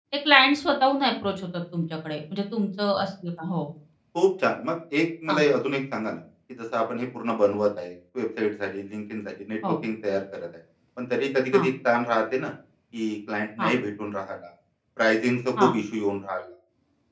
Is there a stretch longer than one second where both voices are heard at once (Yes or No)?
No